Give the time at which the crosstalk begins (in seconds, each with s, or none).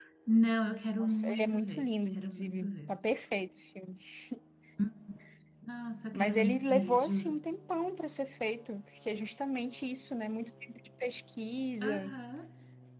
1.0 s